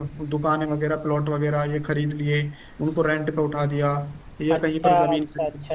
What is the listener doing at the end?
taking over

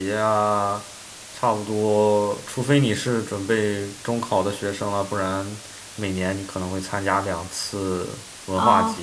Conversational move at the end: taking over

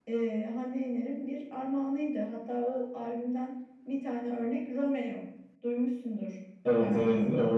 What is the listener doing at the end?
taking over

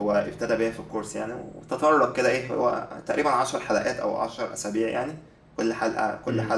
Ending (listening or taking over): listening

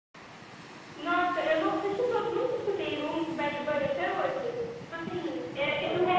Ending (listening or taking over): listening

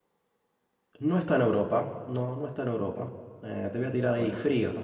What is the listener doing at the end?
listening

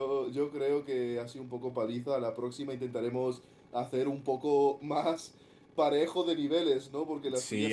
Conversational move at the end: taking over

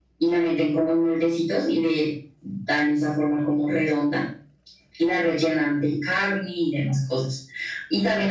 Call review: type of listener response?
listening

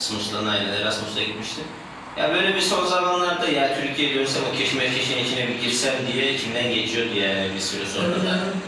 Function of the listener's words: taking over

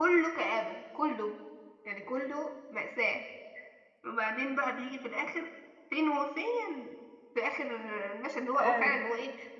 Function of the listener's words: listening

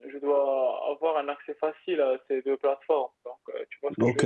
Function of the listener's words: taking over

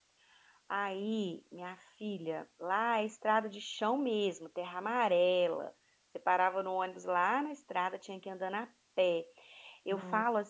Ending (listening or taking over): listening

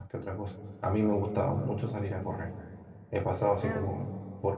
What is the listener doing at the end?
listening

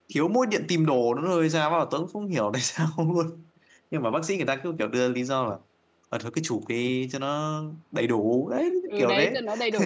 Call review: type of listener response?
taking over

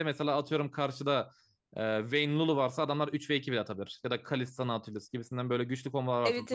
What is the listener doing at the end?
listening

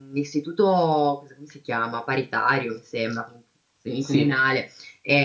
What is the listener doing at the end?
listening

